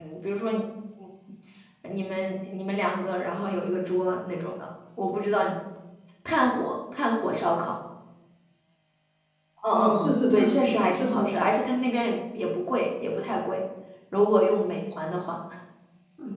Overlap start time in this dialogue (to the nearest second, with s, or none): 10 s